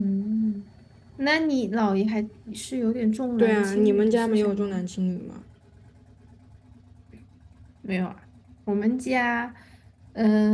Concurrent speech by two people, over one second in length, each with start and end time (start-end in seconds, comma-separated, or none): 3.4-4.7